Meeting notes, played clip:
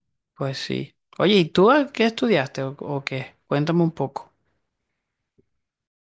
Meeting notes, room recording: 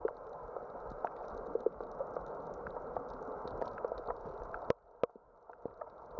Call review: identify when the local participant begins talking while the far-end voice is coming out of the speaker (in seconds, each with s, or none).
none